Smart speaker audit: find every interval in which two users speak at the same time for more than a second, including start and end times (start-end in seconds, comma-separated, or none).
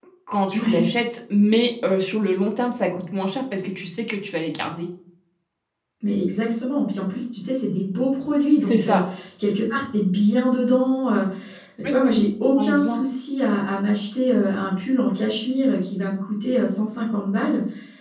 none